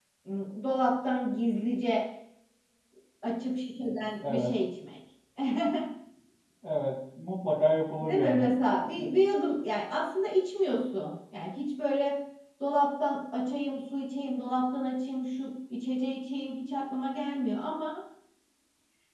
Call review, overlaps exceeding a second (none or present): none